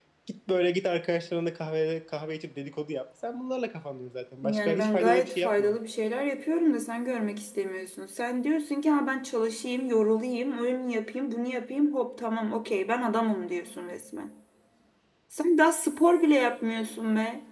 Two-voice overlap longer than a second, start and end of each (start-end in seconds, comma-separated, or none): 4.4-5.8